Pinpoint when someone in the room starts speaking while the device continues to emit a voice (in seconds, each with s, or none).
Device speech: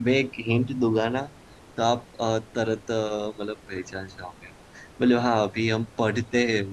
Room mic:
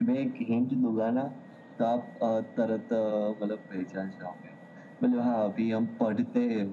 none